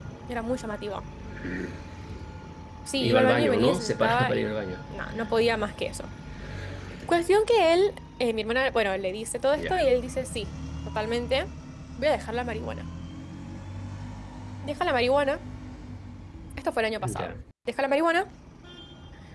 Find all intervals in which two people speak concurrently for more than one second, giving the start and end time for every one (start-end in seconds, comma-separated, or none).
3.0-4.6